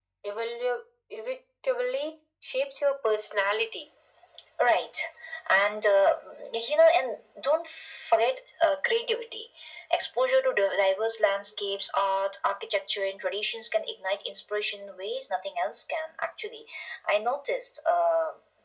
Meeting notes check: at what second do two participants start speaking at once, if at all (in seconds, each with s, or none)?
none